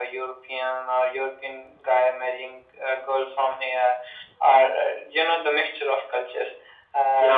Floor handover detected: Yes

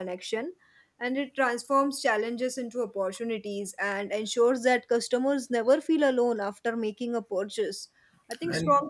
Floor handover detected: No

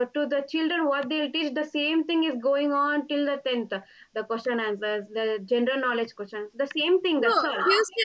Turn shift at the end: Yes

